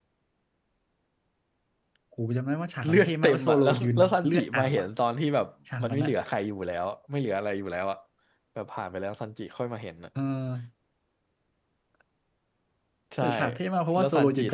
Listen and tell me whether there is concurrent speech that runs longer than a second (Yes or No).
Yes